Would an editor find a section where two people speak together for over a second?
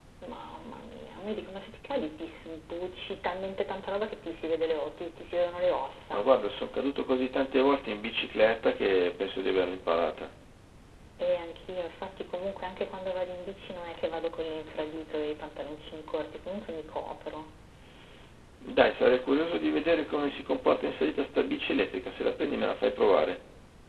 No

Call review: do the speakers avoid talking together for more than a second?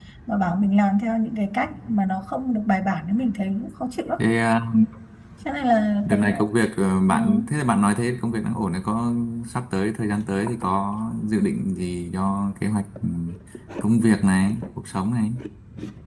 Yes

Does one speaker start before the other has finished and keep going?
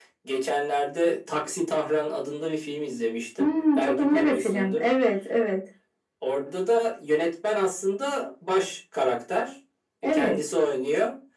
Yes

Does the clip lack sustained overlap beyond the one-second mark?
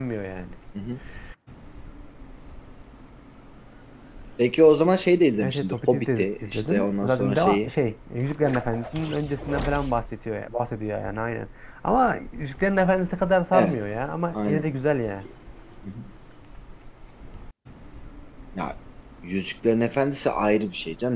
No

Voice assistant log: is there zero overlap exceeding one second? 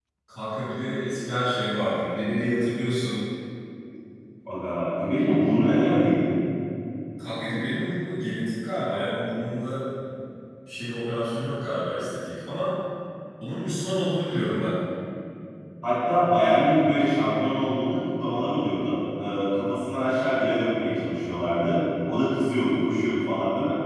Yes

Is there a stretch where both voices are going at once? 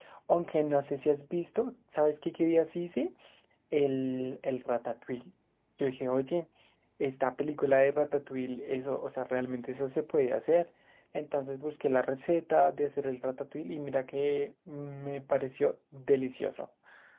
No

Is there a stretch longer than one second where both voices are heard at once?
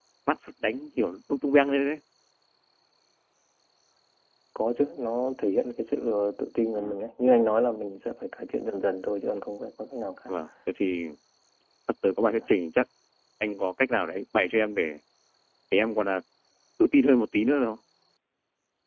No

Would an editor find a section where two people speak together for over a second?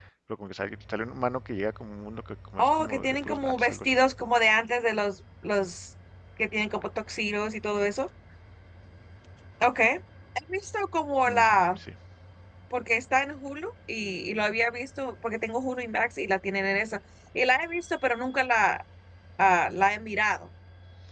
Yes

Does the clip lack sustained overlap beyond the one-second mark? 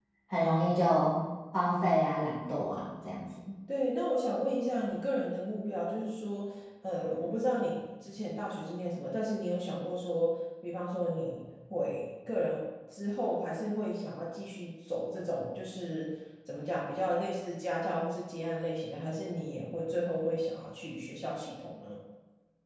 Yes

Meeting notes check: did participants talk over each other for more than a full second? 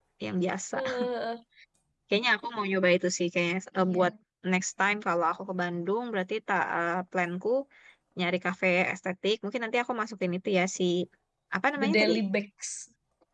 No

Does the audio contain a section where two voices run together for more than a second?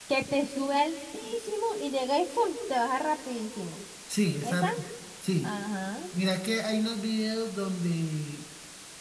No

